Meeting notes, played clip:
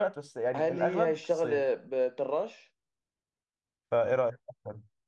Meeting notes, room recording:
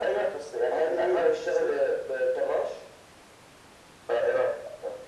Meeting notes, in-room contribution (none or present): none